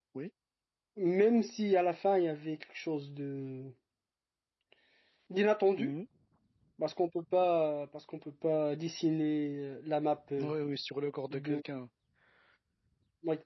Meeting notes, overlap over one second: none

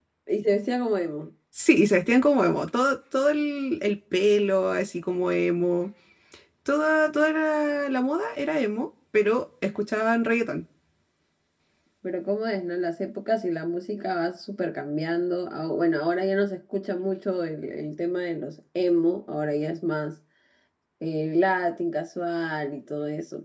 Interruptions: none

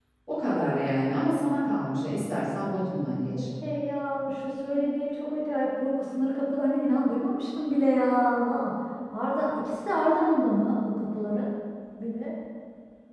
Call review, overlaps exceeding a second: none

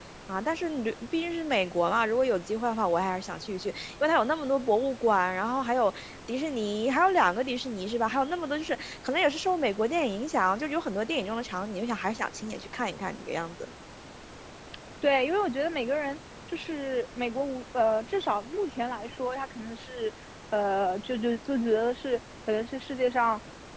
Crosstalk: none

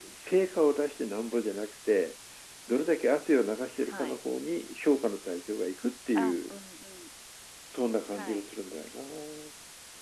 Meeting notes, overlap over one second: none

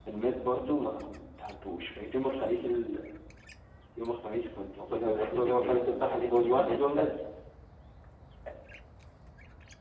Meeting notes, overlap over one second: present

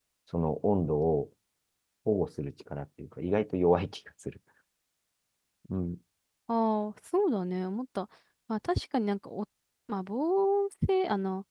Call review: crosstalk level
none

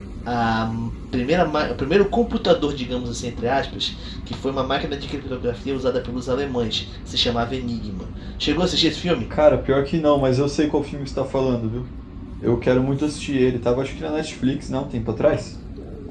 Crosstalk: none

